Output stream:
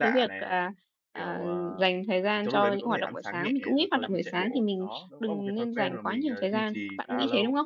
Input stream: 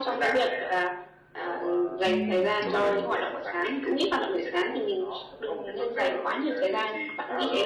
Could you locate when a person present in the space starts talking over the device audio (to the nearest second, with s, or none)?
2 s